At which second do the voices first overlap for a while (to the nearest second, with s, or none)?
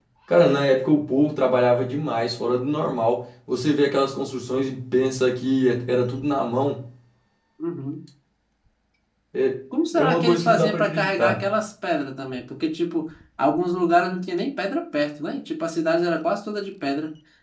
10 s